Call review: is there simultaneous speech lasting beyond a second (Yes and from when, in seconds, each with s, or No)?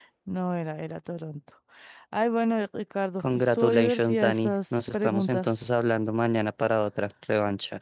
Yes, from 3.2 s